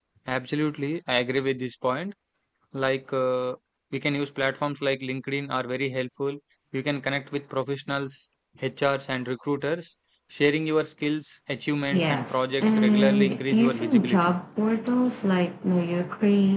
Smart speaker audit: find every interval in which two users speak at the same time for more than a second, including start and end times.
11.9-14.3

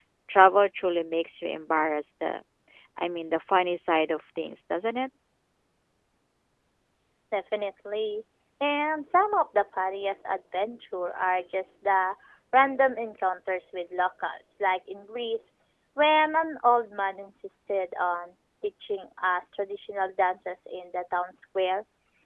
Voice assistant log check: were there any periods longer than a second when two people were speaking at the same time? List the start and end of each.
none

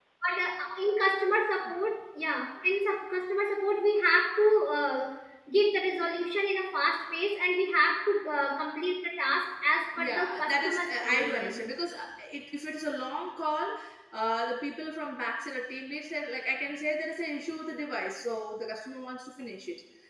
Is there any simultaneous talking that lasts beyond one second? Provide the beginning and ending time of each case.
10.0-11.6

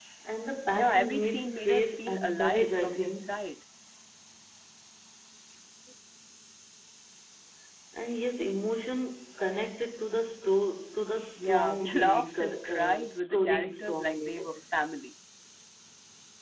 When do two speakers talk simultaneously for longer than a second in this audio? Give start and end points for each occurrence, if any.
0.7-3.3, 11.4-14.6

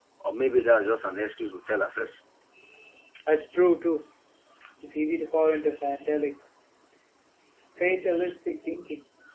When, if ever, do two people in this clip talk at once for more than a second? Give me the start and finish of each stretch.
none

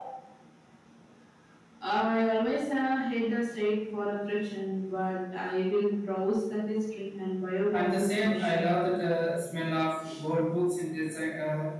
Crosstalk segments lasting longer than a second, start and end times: 7.7-9.0

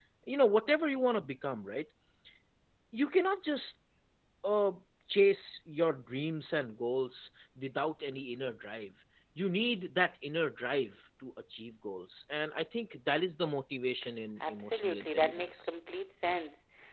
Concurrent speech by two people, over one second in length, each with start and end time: 14.5-15.7

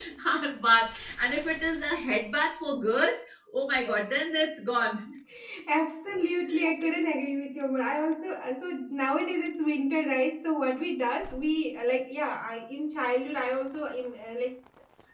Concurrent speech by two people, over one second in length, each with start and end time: none

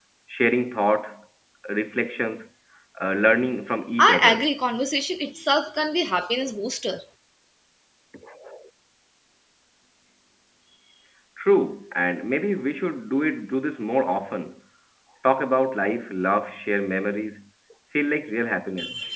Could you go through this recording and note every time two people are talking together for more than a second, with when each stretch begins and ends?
none

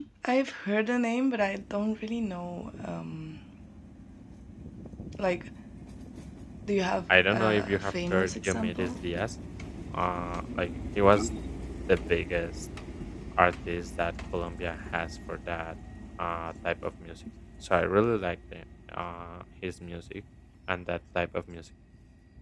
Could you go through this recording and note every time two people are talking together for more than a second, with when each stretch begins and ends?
7.3-8.9

